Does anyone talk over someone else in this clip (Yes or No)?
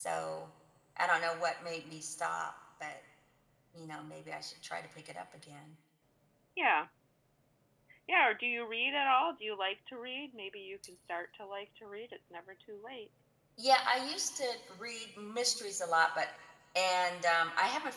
No